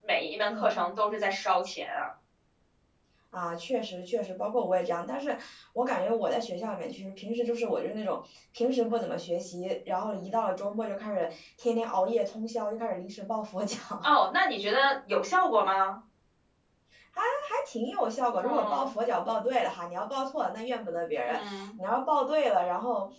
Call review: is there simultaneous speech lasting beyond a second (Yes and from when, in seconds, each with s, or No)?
No